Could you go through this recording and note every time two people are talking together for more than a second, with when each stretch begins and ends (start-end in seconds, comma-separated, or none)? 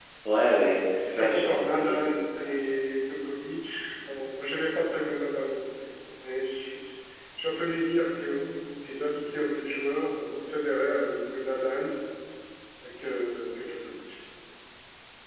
1.1-2.5